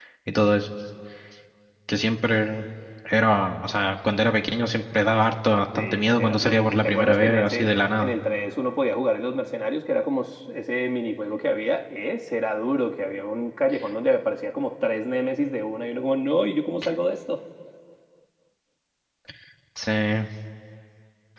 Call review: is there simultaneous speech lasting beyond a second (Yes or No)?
Yes